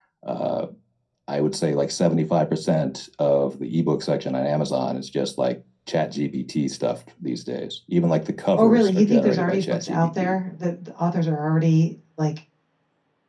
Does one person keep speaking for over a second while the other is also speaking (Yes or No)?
Yes